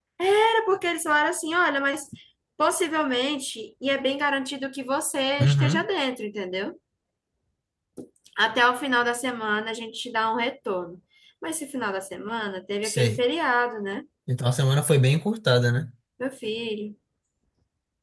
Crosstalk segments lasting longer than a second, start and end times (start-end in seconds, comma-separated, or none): none